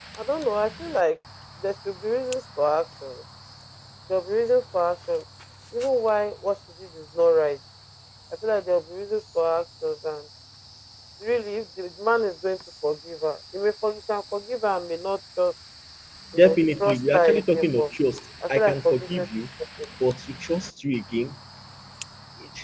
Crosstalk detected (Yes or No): Yes